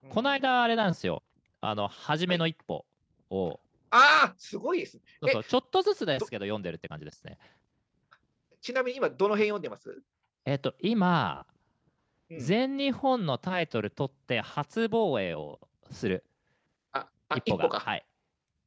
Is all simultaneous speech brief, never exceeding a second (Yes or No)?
Yes